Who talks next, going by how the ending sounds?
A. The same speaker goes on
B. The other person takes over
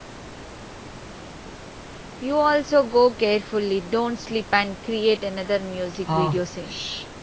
B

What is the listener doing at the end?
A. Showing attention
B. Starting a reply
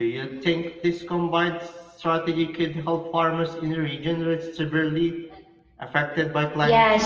B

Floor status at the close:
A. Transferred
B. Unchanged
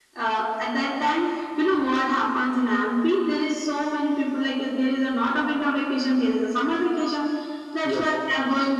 B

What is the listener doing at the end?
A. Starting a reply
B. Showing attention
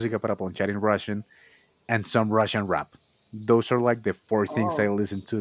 B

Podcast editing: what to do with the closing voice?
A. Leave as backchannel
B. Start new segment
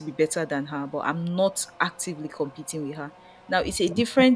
A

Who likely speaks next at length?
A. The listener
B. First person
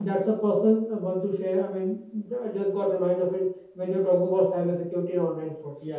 A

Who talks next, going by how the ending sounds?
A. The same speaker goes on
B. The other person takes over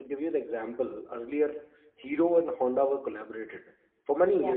A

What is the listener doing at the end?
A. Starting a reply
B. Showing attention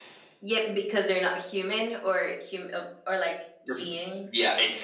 A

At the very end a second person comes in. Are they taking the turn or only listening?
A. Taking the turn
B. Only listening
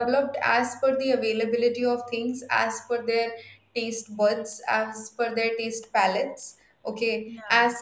B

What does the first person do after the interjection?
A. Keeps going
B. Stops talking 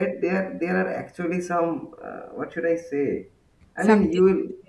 A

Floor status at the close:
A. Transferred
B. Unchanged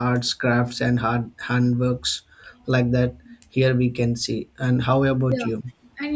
A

